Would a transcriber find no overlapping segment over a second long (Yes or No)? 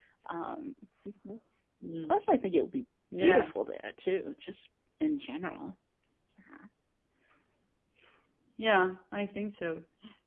Yes